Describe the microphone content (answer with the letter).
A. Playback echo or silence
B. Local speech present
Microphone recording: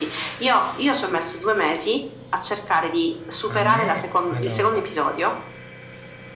B